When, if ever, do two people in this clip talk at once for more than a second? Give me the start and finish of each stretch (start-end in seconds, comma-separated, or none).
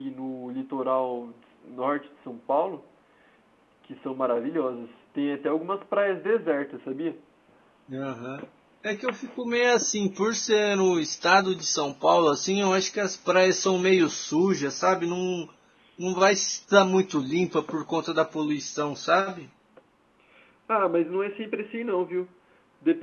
none